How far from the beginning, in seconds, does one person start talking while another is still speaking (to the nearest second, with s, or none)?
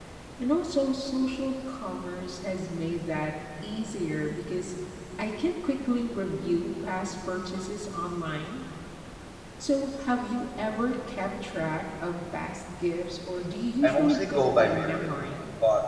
14 s